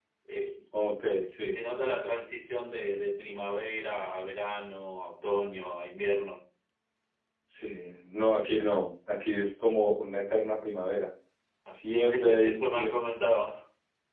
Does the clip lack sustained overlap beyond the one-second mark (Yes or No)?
No